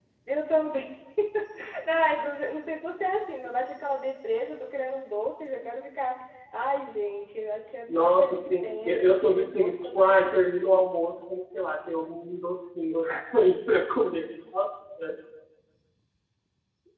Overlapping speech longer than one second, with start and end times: 7.9-10.5

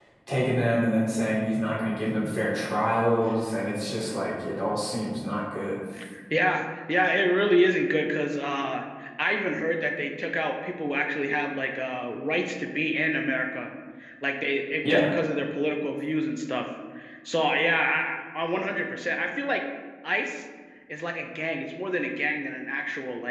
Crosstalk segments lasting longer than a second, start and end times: none

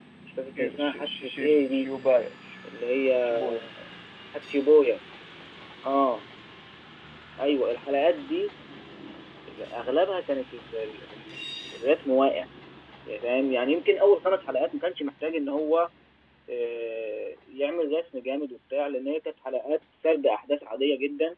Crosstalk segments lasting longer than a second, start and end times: 0.6-1.9

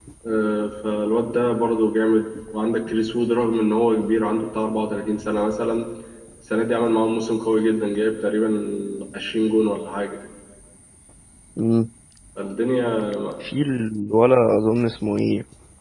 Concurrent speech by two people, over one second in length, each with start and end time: none

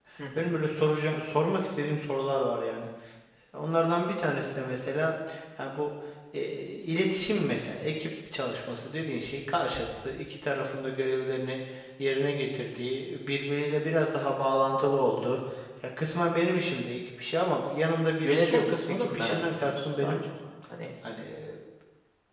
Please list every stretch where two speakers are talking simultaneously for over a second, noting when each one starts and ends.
18.2-20.2

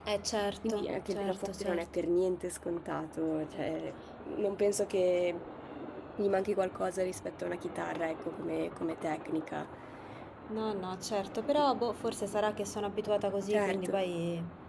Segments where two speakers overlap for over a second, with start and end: 0.6-1.9

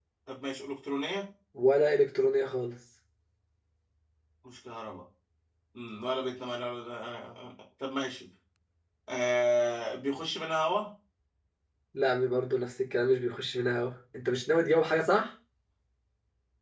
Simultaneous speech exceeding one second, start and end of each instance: none

